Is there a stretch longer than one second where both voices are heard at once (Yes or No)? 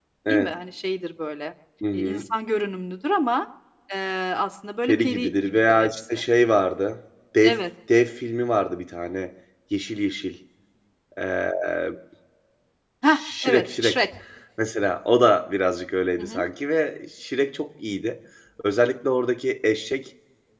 Yes